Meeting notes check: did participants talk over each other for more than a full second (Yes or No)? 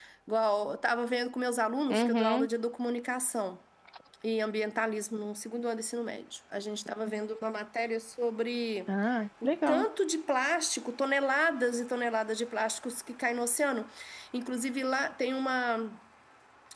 No